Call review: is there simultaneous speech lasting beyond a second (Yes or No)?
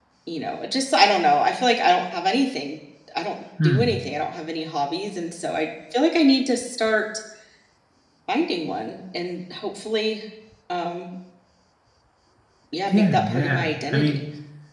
Yes